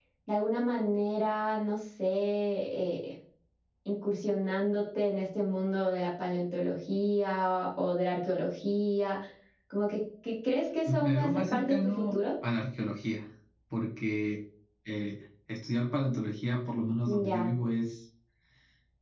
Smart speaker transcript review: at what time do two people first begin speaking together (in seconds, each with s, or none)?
10.9 s